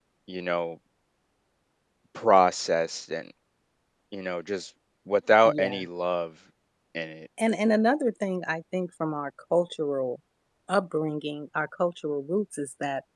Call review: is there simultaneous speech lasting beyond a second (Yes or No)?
No